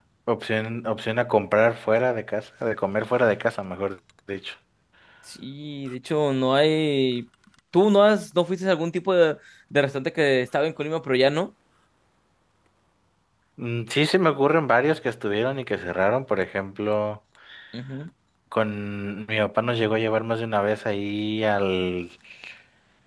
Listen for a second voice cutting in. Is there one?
No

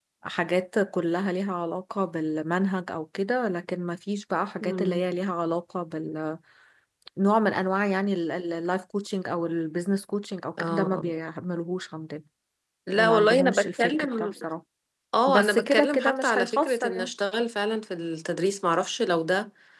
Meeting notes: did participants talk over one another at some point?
Yes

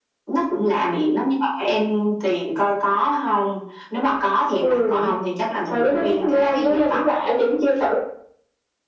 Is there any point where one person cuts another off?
Yes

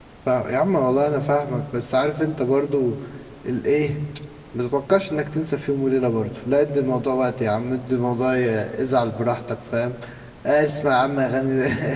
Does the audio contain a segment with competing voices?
No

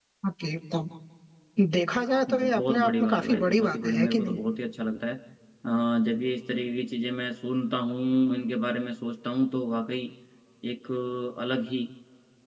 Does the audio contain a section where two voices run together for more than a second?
Yes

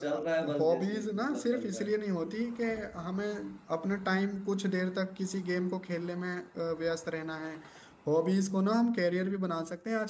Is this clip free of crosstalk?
No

